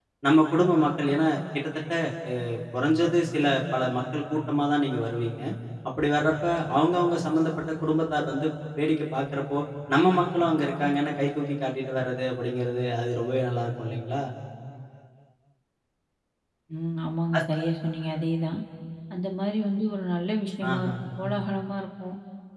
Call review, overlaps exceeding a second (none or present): none